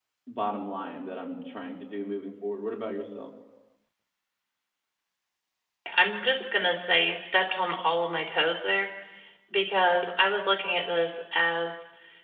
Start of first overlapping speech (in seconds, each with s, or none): none